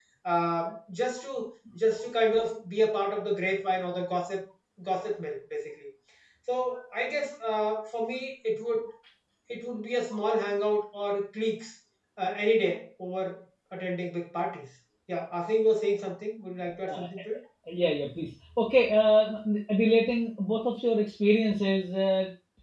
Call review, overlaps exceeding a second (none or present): none